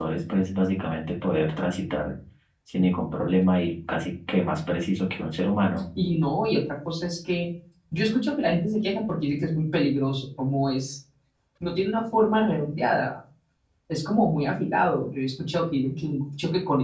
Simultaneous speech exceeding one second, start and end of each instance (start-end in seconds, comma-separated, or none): none